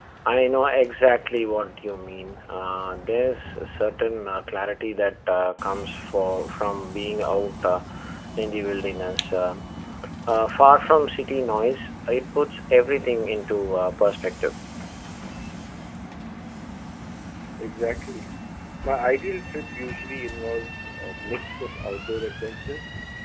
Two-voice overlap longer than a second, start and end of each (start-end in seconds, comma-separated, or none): none